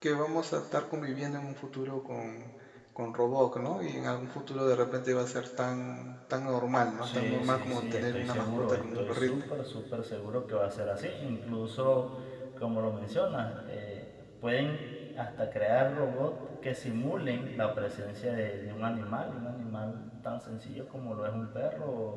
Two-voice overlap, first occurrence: 7.0 s

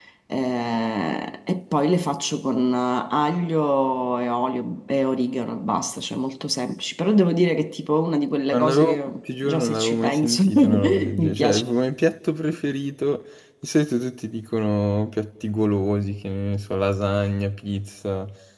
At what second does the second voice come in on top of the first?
8.5 s

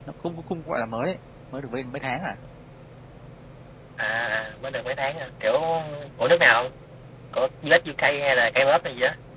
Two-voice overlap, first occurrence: none

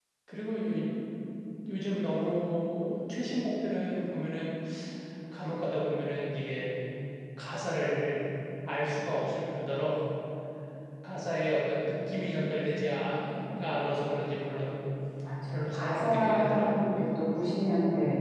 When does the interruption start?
15.5 s

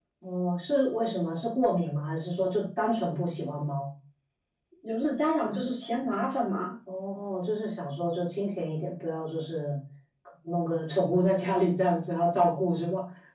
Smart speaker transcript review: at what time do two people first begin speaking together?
none

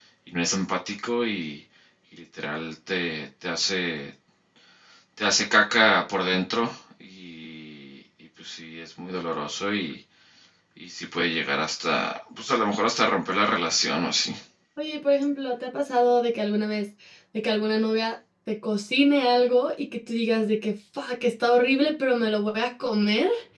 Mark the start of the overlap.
none

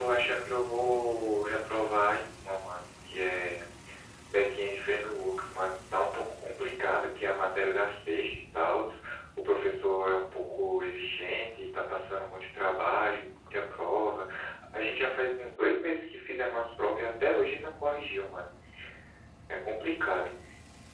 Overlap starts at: none

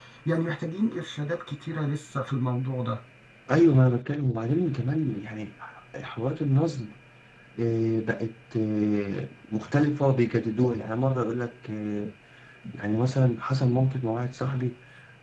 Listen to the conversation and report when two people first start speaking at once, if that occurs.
none

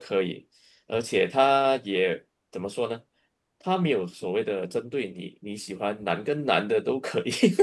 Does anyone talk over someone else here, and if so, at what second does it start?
none

